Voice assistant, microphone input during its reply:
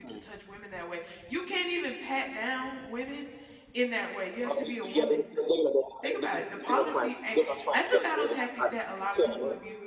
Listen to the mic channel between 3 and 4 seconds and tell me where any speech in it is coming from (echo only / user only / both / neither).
user only